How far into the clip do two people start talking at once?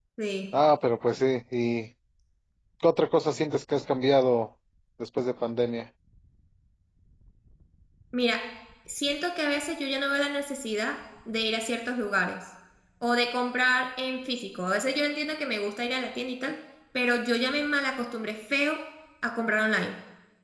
none

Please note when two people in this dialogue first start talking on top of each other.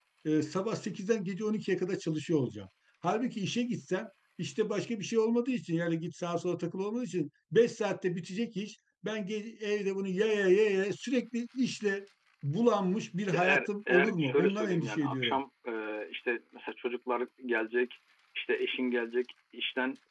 13 s

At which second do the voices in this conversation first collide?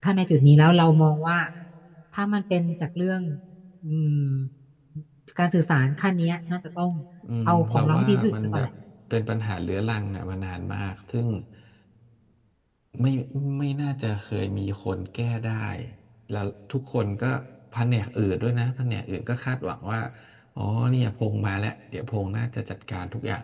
7 s

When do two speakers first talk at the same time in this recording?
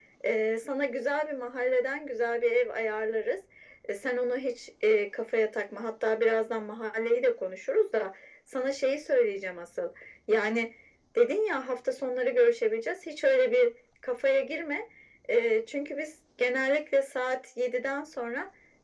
none

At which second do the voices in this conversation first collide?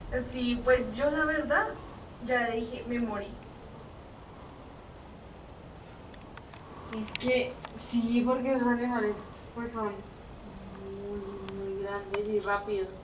none

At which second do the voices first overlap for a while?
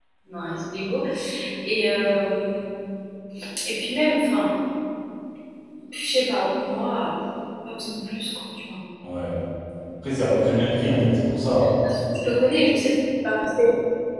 none

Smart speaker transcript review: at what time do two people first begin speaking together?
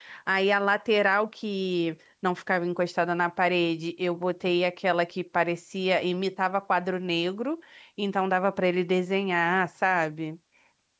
none

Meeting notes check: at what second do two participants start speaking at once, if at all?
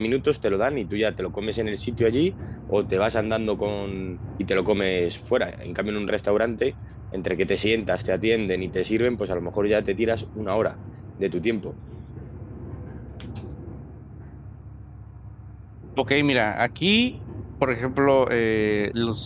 none

